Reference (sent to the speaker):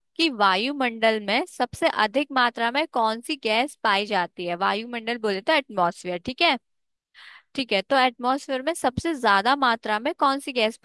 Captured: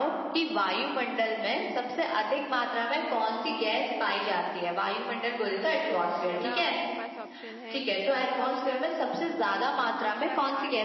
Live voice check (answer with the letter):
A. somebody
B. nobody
A